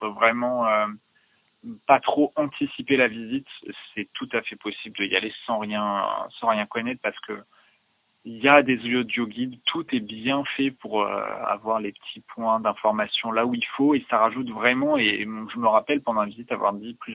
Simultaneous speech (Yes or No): No